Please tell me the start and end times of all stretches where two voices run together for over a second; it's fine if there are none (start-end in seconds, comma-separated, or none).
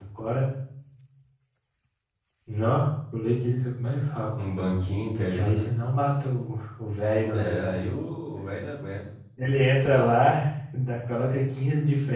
none